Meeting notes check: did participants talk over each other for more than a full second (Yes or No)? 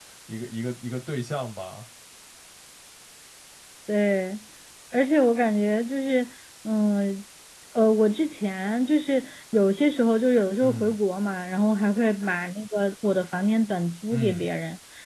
No